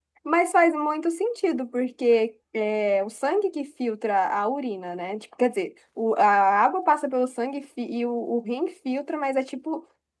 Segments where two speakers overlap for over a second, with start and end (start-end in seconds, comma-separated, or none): none